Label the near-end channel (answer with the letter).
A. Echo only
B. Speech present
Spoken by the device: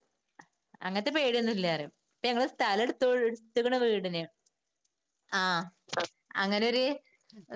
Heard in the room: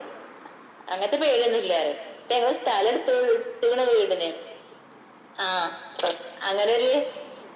A